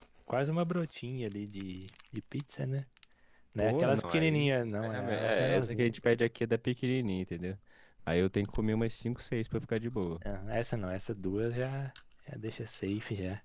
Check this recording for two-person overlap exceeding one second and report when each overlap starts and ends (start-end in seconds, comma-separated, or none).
3.6-6.0